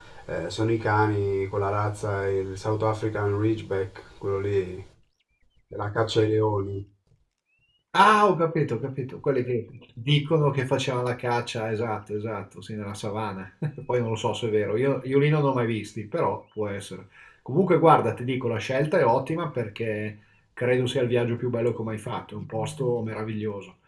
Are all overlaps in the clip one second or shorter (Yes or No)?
Yes